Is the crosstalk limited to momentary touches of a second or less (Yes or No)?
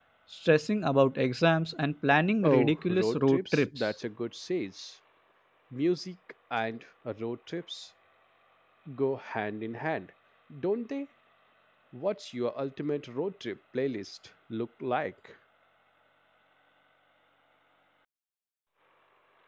No